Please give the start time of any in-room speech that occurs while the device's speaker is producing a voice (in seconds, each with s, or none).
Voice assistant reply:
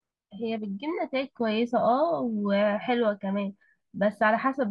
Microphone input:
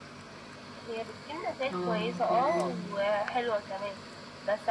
1.7 s